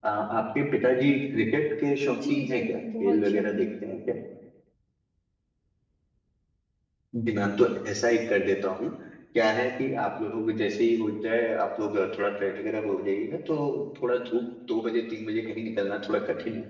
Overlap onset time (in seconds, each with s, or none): 2.0 s